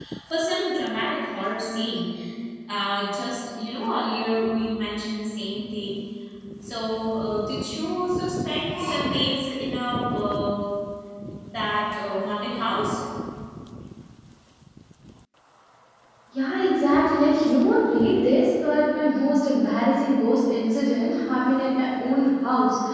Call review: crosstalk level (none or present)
none